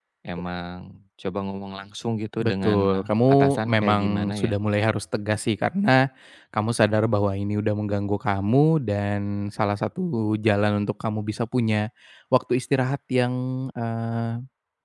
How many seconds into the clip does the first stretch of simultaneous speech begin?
2.4 s

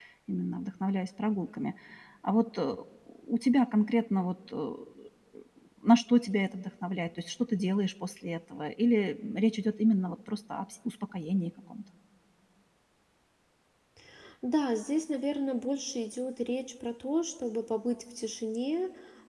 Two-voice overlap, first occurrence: none

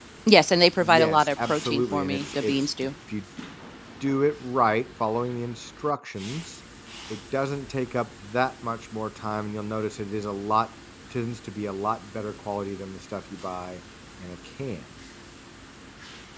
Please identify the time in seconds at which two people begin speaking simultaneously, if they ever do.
0.8 s

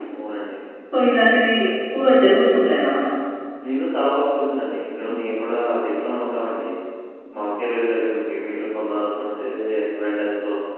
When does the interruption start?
none

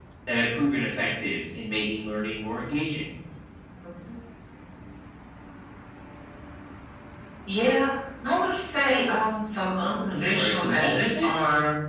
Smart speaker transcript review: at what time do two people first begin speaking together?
10.1 s

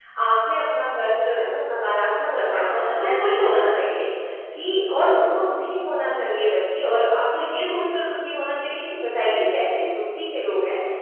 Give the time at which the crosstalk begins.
2.5 s

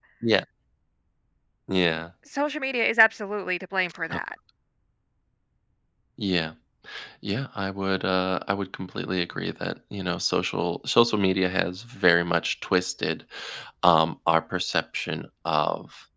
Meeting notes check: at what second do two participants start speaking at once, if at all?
none

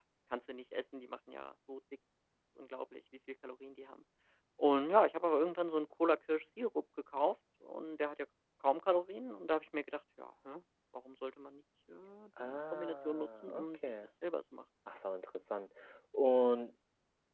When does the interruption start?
12.4 s

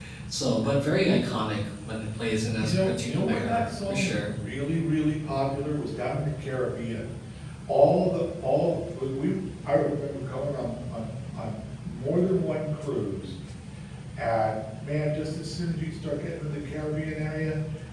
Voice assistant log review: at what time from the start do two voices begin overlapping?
2.6 s

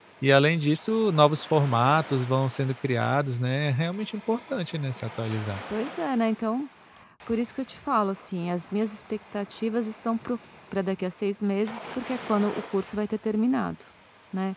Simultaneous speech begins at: none

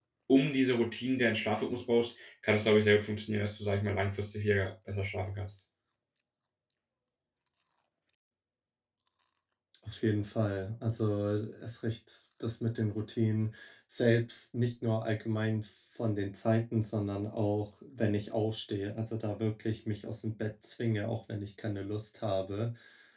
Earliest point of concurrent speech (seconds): none

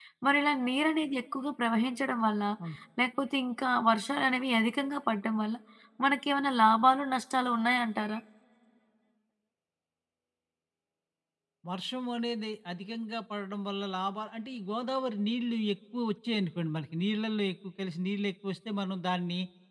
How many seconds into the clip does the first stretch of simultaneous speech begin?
none

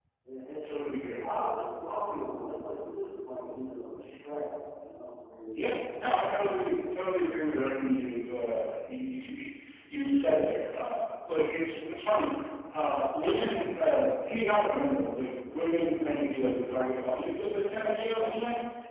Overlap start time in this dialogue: none

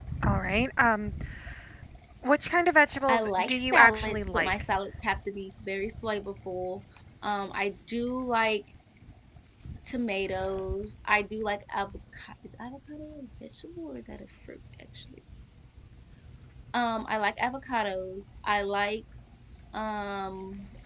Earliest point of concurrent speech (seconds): 3.1 s

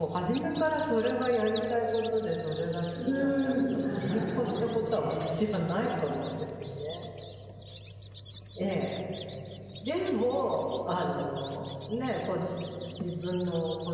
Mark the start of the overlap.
2.9 s

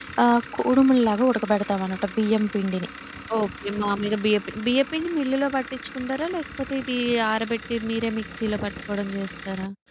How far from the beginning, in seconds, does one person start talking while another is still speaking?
none

